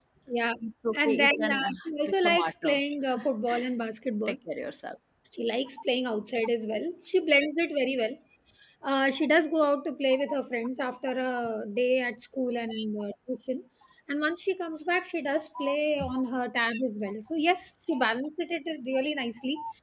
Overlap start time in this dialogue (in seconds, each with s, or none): 0.9 s